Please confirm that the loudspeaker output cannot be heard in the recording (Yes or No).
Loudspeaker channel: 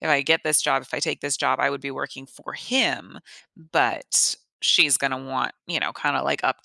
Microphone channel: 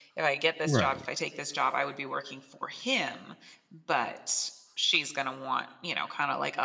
No